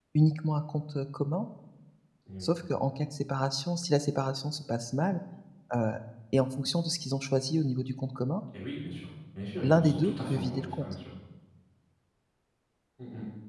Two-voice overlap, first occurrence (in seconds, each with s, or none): 9.6 s